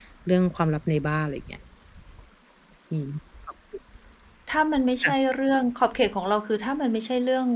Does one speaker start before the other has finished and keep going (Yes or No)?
No